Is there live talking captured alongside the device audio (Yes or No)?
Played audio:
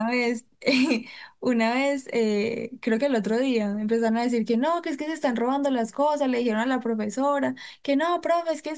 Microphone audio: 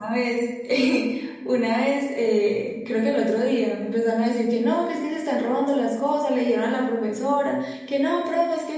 No